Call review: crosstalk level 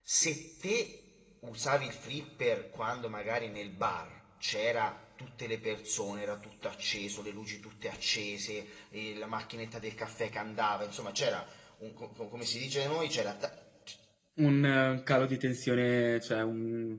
none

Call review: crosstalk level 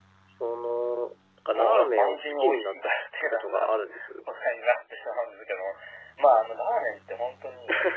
present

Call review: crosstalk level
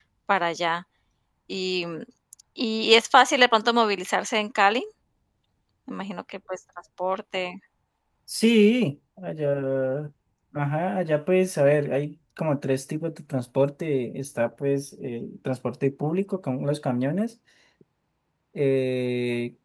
none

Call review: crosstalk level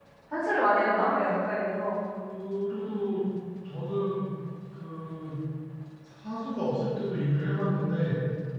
none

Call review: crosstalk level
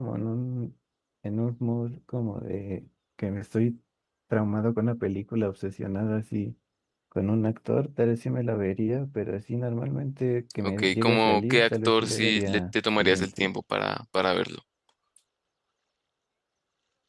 present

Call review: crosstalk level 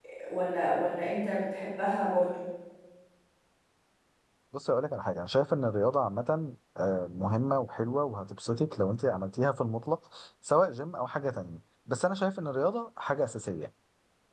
none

